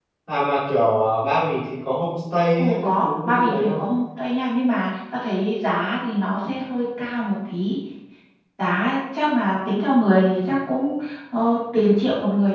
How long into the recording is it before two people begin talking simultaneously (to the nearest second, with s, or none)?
3 s